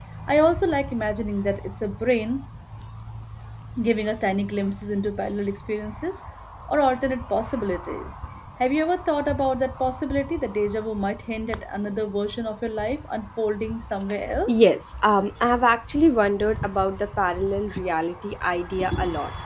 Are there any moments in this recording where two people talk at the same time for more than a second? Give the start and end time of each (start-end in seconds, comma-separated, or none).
none